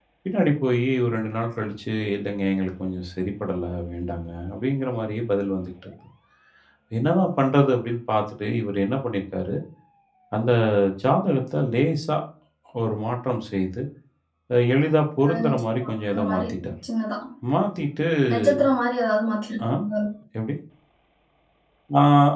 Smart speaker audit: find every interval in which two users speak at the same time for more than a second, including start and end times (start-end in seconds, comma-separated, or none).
15.3-16.5